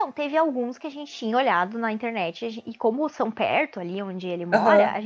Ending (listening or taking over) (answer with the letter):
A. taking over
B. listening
B